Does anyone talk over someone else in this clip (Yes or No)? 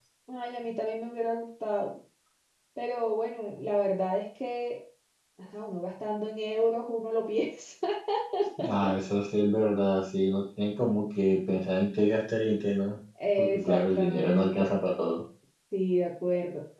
Yes